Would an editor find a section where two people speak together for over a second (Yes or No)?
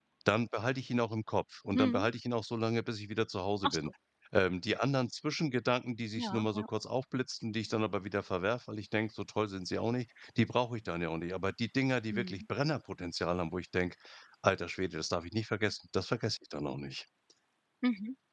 No